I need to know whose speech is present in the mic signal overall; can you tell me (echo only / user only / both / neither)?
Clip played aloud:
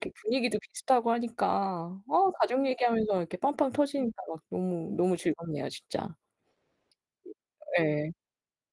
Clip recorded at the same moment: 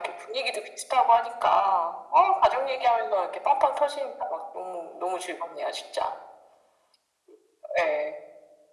echo only